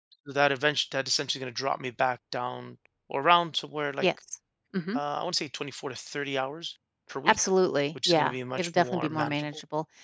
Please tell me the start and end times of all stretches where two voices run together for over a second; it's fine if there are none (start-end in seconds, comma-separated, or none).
8.1-9.4